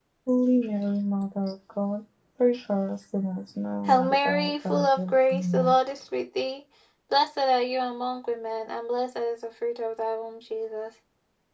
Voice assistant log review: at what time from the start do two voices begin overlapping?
3.9 s

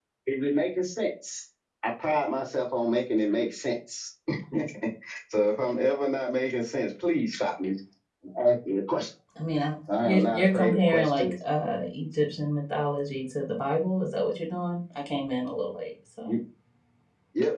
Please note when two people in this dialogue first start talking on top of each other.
10.0 s

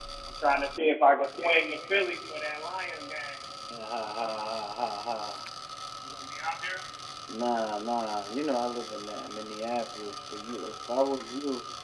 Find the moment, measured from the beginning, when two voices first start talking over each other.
none

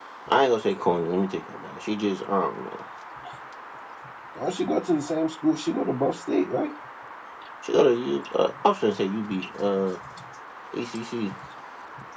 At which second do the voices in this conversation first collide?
none

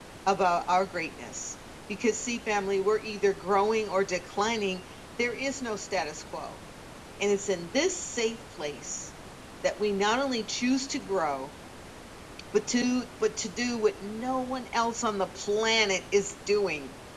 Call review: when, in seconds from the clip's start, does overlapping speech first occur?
none

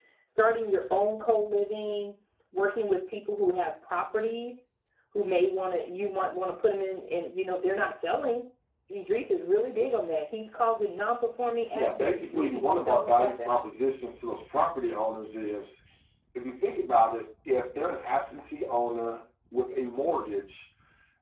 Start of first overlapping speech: 11.7 s

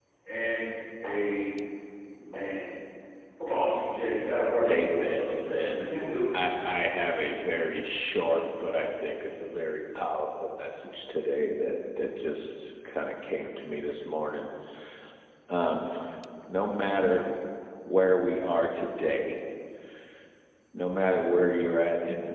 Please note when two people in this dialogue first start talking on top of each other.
4.6 s

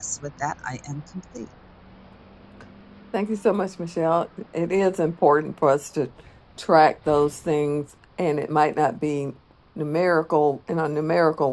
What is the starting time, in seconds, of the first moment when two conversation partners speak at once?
none

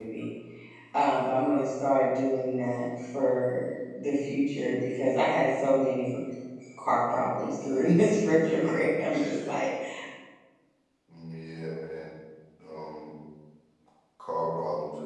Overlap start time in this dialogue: none

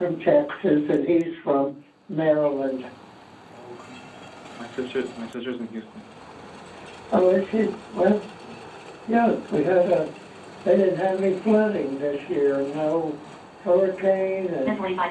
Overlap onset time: none

